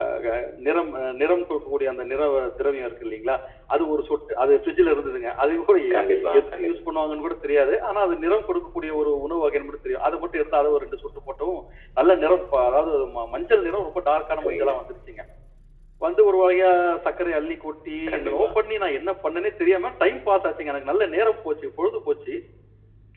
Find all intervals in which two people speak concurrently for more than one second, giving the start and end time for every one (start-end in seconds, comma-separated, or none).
none